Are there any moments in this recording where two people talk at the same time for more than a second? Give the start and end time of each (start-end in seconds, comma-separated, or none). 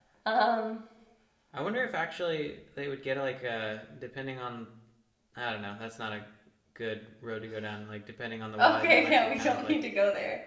8.6-9.8